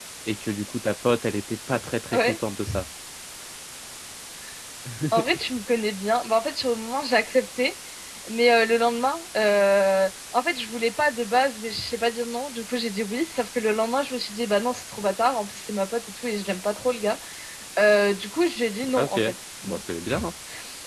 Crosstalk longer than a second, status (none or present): none